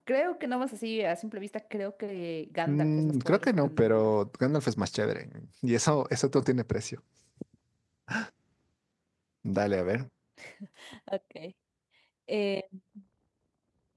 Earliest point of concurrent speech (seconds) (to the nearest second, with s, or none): 3 s